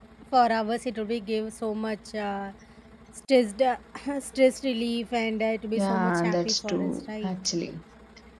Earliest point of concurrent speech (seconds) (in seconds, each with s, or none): 5.7 s